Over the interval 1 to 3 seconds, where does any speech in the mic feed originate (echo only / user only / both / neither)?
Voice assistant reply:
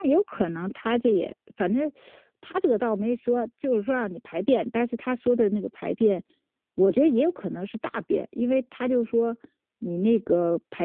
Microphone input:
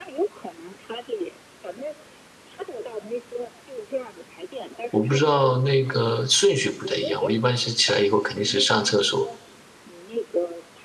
echo only